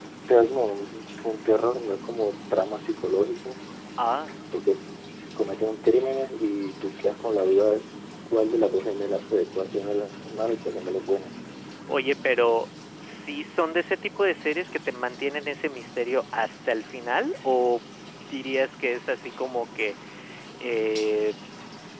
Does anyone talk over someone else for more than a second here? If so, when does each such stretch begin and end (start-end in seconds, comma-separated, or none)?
none